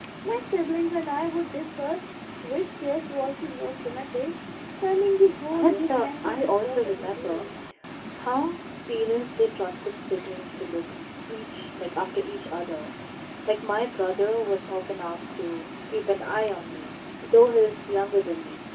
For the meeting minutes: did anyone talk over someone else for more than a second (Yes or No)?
Yes